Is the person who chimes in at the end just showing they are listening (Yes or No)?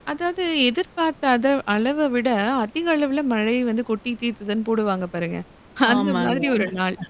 Yes